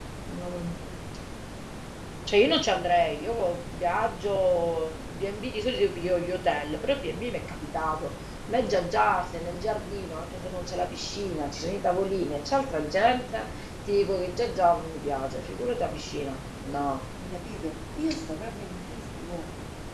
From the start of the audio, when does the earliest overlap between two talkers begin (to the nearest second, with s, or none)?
none